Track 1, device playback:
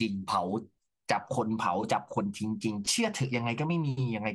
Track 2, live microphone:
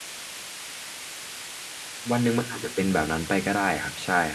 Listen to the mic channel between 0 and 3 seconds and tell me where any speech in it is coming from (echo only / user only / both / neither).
user only